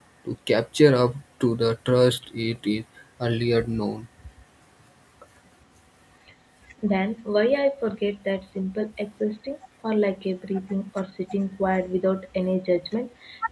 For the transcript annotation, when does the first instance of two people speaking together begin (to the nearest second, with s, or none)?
none